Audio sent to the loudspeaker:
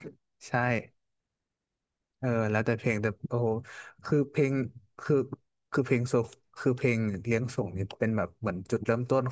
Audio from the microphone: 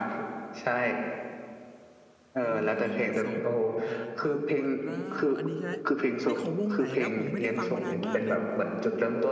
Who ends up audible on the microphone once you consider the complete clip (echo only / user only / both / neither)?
both